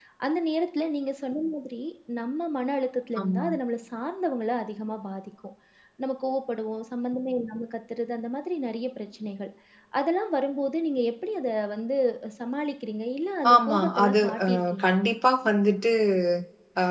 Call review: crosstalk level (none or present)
present